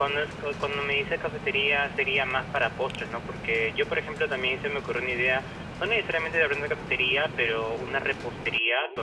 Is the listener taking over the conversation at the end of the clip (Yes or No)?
No